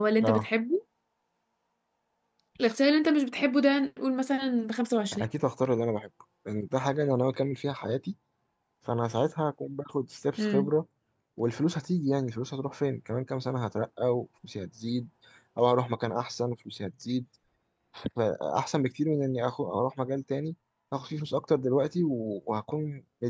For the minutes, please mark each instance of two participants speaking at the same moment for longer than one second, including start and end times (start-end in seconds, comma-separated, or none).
none